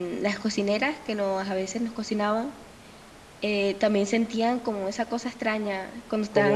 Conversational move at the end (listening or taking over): taking over